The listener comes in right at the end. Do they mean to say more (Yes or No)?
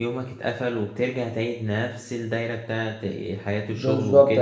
Yes